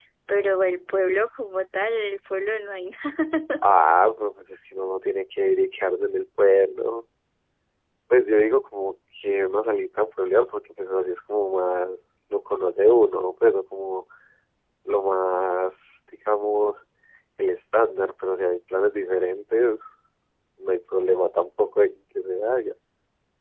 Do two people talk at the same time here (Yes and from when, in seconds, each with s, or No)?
No